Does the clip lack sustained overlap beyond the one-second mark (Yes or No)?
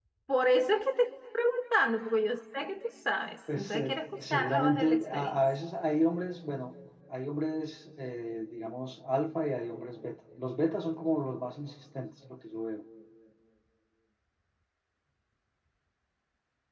No